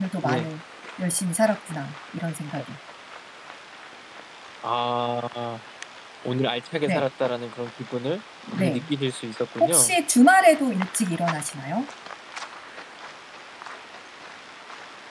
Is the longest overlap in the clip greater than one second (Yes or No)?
No